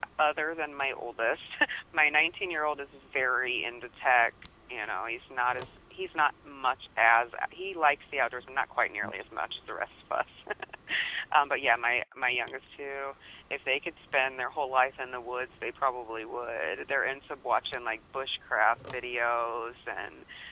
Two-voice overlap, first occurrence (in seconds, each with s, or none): none